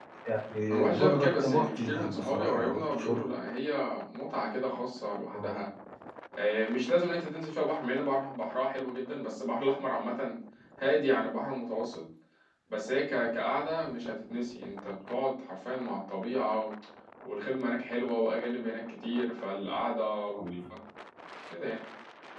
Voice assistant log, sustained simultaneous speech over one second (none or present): present